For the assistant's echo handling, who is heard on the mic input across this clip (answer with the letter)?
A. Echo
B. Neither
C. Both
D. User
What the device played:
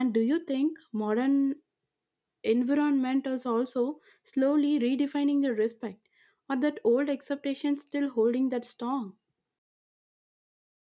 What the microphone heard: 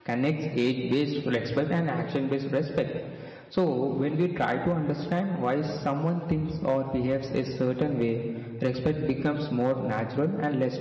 D